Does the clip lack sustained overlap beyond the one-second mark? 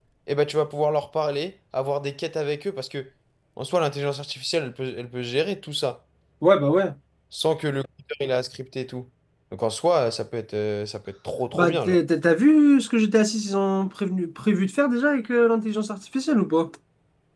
Yes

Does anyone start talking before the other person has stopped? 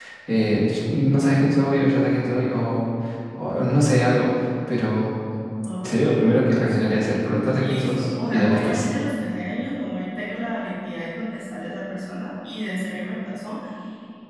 Yes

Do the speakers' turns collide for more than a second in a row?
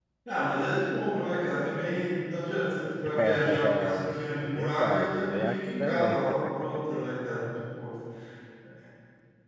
Yes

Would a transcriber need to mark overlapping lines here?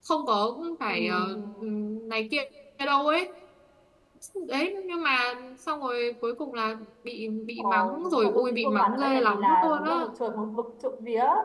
Yes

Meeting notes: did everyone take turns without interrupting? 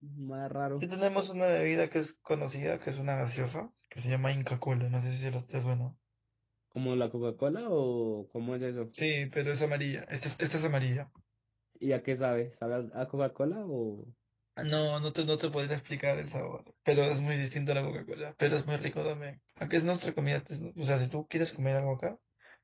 Yes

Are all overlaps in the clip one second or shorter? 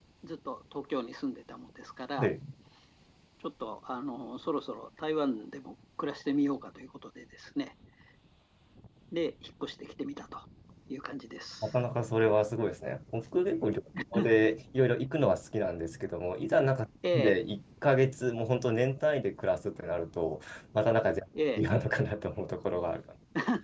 Yes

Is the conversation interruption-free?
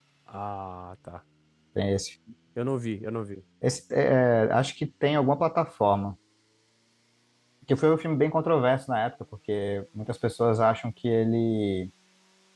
Yes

